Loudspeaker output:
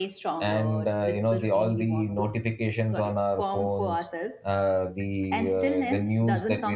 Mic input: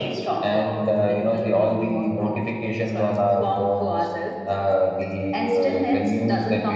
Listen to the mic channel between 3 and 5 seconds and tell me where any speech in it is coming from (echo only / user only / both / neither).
echo only